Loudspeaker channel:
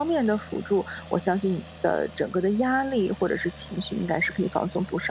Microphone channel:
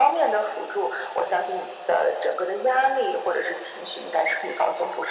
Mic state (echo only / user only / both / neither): echo only